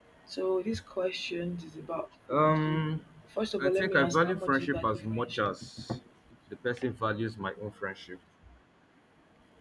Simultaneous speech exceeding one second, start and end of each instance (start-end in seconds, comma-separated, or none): 3.6-5.5